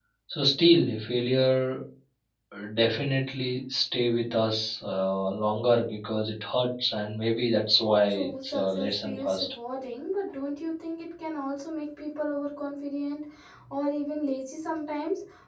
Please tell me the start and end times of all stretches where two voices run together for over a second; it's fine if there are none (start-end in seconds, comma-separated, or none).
8.1-9.5